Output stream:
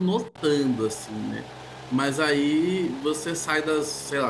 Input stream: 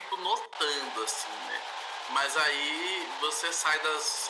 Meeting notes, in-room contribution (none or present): none